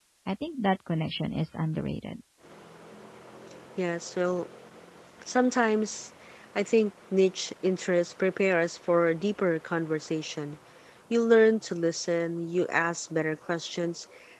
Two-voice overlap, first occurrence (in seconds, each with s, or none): none